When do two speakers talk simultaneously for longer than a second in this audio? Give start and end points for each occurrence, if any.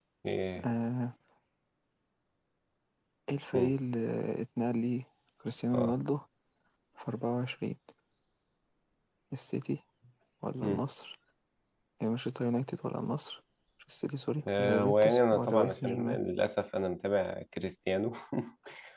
14.5-16.2

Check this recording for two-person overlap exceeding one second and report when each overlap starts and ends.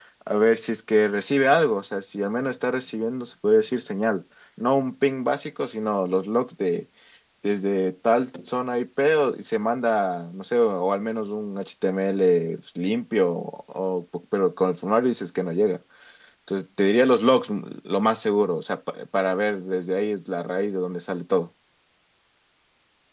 none

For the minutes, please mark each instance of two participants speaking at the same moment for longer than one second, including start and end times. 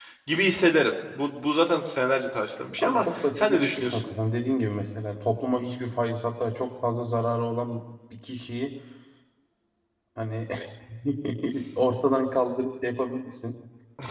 2.8-4.1

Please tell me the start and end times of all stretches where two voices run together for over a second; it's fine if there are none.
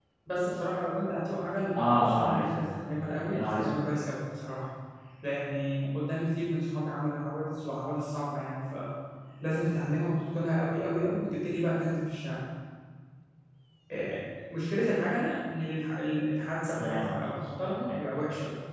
1.8-3.8

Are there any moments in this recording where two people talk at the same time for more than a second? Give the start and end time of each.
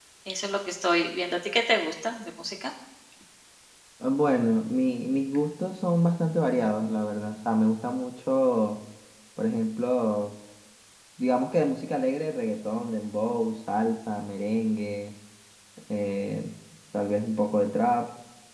none

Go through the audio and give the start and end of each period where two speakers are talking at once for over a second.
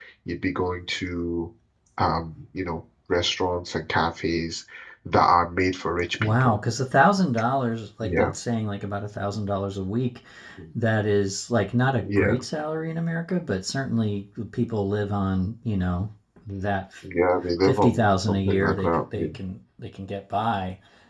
17.6-19.3

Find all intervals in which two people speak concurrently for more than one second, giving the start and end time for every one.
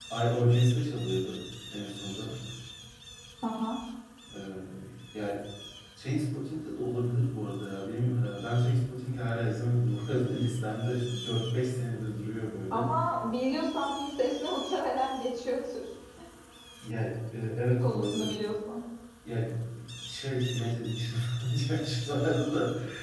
none

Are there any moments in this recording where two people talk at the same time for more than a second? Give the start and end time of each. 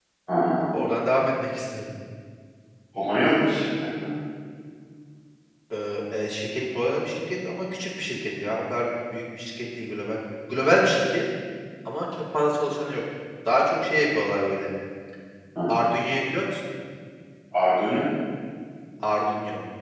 none

